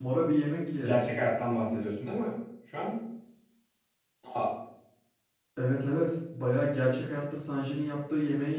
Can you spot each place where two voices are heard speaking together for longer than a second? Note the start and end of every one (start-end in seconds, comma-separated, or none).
none